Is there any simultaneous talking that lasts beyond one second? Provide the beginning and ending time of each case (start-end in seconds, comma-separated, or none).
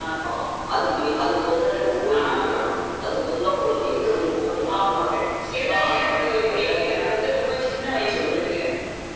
none